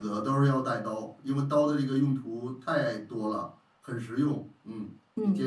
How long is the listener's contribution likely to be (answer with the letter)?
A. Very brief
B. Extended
B